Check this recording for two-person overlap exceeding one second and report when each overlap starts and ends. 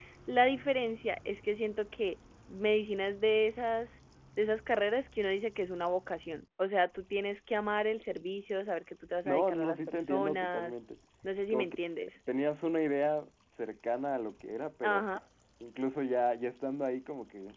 9.2-10.7

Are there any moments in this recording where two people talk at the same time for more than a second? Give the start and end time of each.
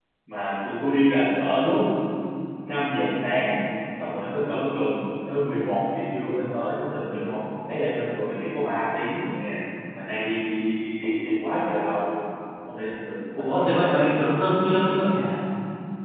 13.4-14.6

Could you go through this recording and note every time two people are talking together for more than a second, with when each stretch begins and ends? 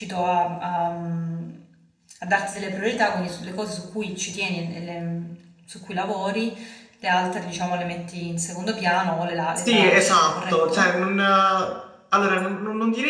9.6-10.9

